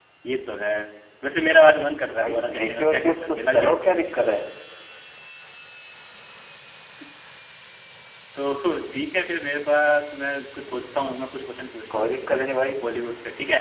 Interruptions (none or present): present